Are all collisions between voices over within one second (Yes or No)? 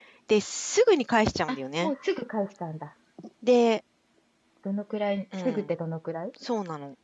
Yes